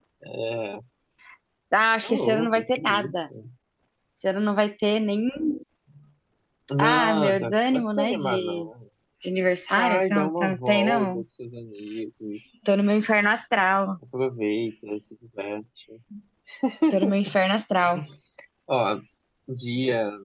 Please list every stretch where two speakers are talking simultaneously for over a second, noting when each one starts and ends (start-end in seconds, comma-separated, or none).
2.0-3.3, 6.8-8.7, 9.8-11.2